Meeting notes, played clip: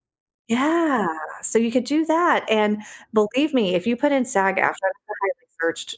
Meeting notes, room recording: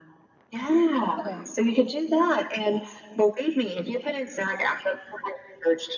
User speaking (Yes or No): Yes